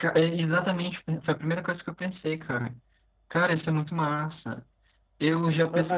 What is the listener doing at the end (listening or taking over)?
taking over